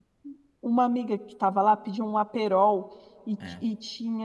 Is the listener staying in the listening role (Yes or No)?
Yes